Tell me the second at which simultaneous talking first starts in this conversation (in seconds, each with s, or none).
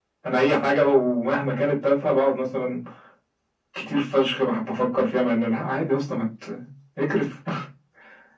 none